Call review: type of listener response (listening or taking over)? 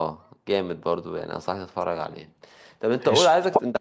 listening